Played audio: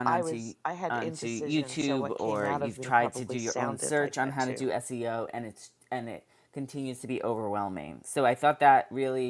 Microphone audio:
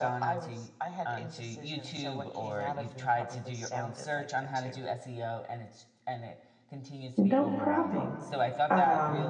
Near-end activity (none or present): present